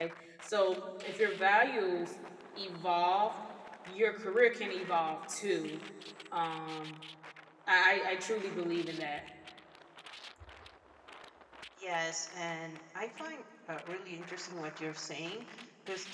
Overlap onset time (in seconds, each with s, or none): none